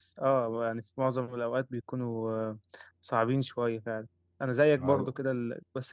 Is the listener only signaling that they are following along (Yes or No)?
Yes